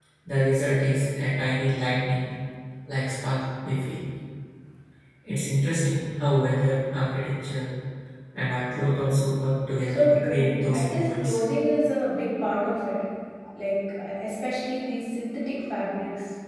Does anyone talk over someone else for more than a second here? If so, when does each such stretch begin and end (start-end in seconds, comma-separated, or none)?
9.9-11.4